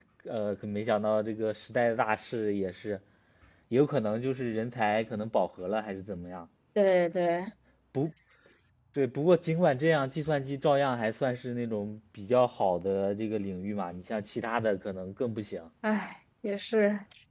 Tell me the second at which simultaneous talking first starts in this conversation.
none

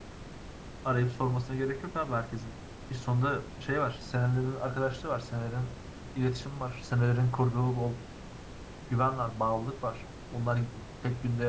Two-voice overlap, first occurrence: none

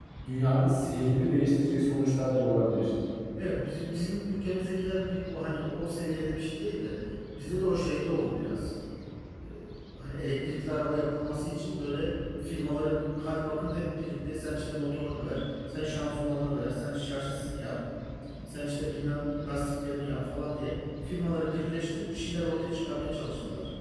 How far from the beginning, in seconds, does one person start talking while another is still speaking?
none

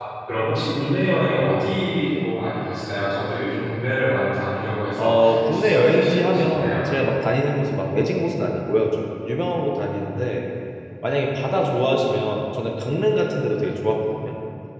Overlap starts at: 5 s

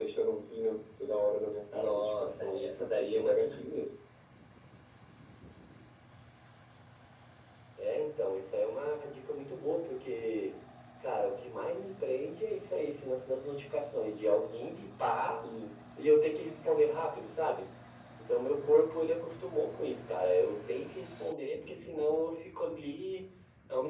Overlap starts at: 2 s

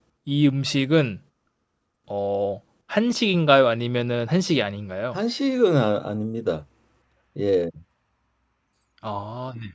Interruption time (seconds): none

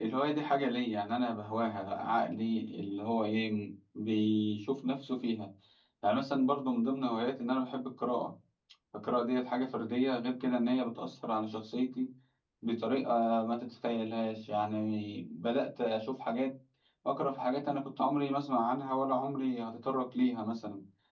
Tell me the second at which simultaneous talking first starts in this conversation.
none

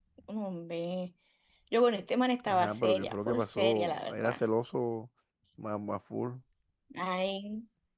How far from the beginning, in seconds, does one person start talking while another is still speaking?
2 s

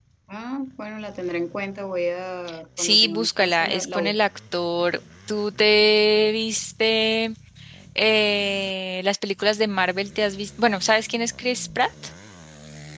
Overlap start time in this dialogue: 3 s

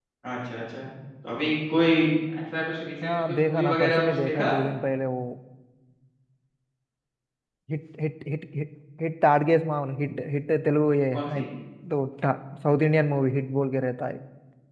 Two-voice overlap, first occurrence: 3 s

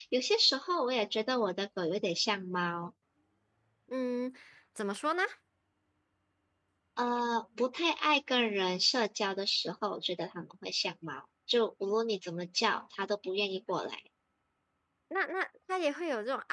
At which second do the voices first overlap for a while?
none

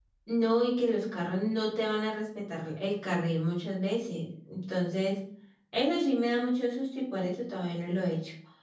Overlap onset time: none

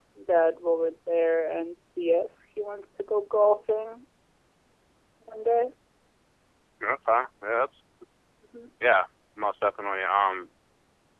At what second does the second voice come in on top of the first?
none

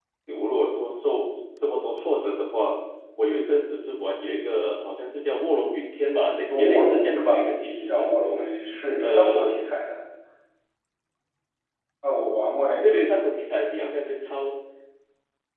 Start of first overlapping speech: 6 s

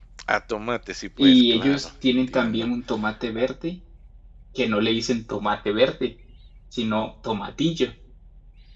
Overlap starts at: 1 s

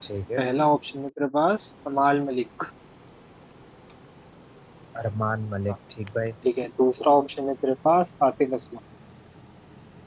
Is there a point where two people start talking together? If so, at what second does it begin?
none

